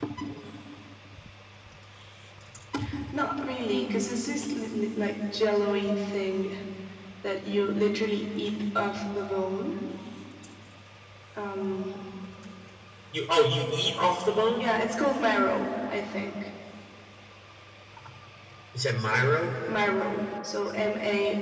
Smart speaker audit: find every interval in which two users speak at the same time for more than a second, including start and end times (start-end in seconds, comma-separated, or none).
none